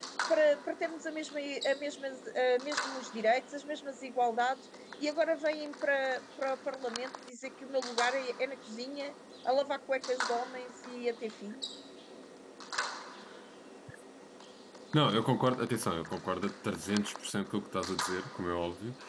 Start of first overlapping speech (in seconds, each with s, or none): none